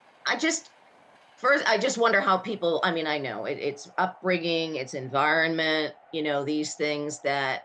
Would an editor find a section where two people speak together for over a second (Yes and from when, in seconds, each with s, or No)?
No